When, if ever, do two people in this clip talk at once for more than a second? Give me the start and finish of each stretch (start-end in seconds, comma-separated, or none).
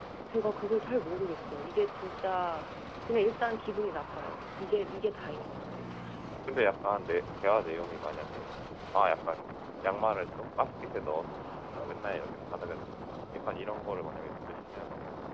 none